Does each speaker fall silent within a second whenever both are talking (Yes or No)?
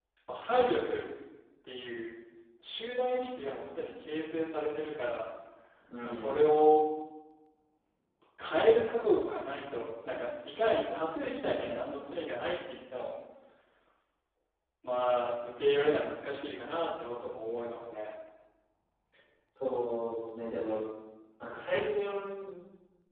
Yes